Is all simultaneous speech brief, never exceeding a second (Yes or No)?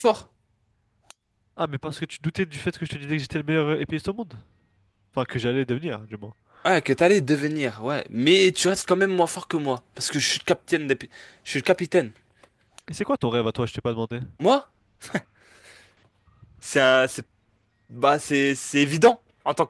Yes